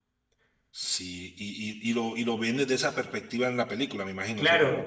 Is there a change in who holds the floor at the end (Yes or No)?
Yes